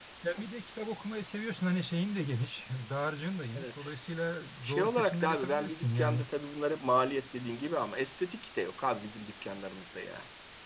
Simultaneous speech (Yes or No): Yes